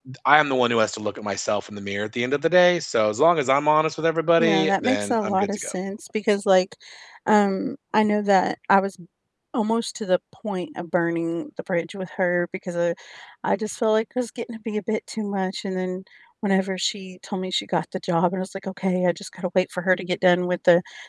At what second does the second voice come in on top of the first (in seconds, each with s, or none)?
4.4 s